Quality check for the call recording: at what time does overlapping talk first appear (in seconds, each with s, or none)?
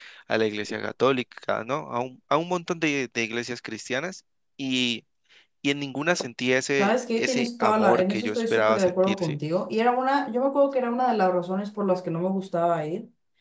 6.8 s